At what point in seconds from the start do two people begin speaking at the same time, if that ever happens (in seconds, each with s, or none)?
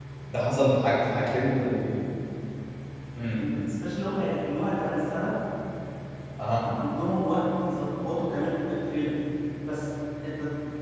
none